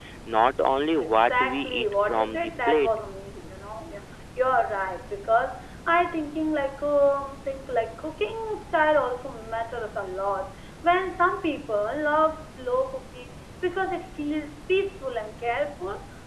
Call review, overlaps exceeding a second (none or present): present